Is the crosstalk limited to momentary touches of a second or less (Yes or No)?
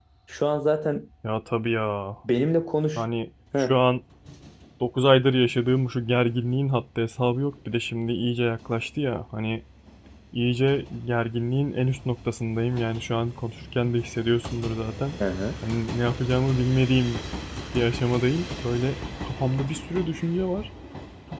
Yes